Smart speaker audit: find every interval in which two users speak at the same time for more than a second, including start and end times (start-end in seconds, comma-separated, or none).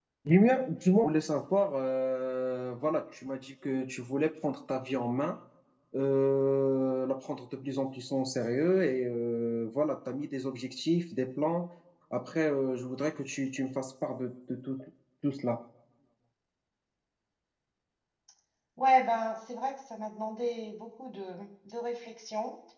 none